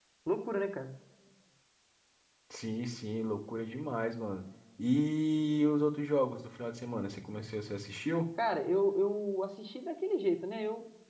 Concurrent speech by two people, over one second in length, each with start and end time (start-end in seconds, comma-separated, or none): none